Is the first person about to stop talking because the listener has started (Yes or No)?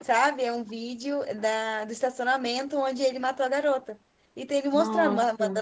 No